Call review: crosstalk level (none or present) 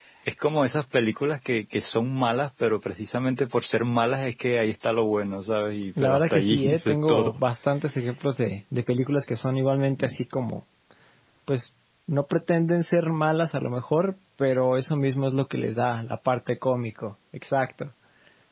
present